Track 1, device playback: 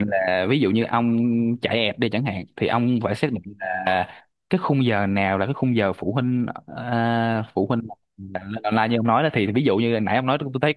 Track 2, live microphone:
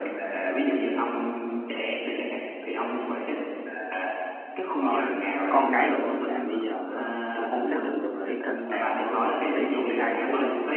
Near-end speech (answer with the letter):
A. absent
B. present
B